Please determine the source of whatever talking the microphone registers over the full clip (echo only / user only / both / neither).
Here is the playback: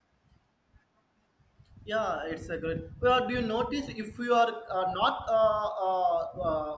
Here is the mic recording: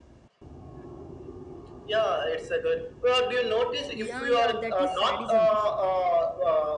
both